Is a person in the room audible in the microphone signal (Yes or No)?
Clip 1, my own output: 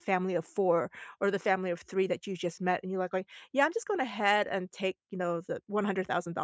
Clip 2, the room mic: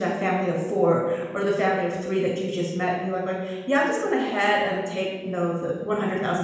No